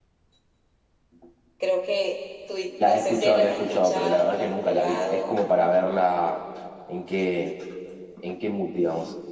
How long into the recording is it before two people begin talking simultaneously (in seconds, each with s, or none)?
2.8 s